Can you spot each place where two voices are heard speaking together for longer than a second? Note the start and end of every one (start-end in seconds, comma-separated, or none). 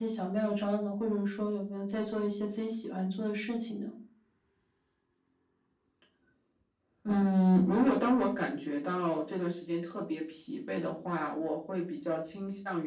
none